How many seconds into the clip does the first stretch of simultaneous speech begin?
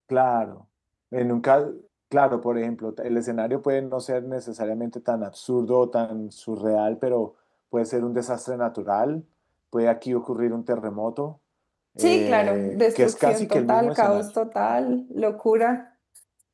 12.0 s

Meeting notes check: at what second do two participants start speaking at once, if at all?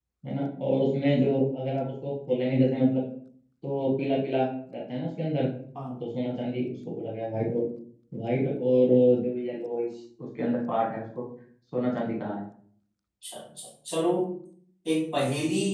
none

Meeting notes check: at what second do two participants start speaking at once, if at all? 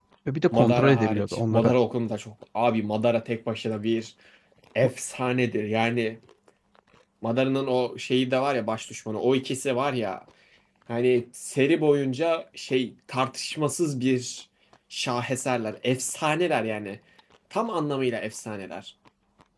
0.5 s

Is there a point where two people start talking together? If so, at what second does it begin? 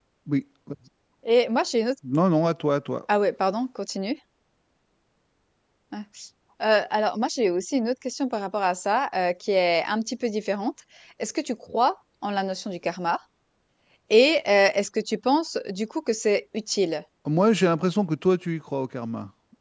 none

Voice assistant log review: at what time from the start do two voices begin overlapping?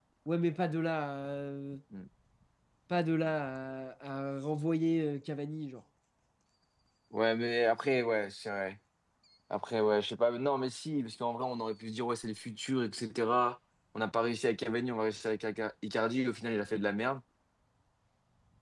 none

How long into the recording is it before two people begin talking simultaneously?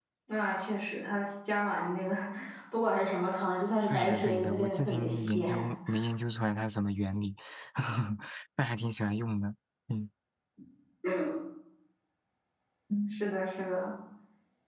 3.9 s

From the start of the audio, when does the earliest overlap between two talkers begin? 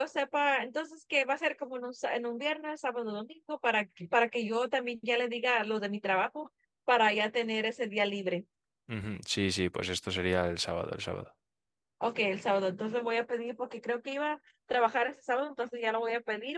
none

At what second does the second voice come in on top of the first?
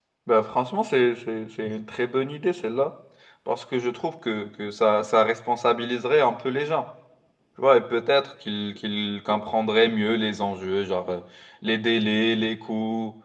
none

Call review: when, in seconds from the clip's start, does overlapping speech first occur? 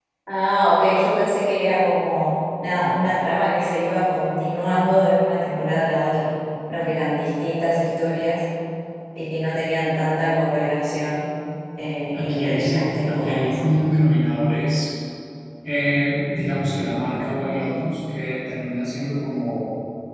12.2 s

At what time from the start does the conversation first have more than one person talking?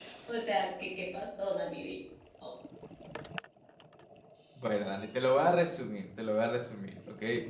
none

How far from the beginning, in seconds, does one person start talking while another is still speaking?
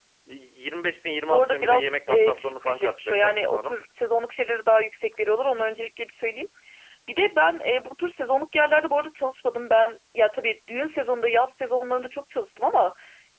1.3 s

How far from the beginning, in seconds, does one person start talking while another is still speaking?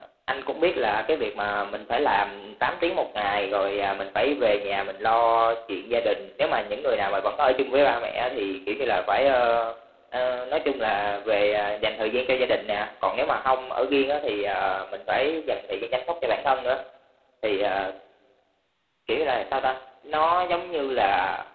none

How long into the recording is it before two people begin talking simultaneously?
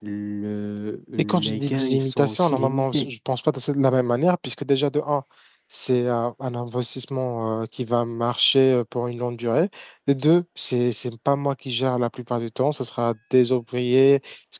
1.2 s

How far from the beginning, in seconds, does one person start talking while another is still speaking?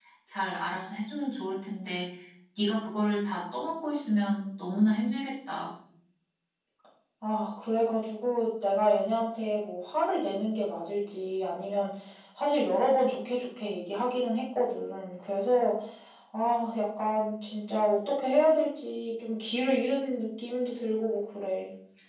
none

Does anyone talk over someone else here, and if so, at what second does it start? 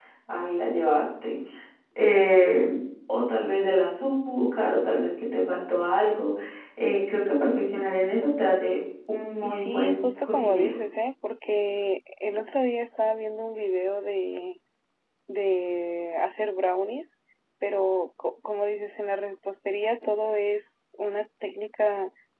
9.4 s

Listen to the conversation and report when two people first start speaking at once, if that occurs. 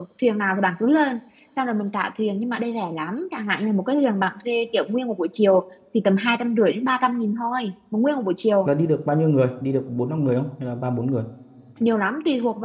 none

